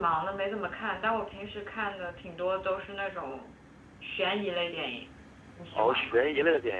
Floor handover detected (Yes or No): Yes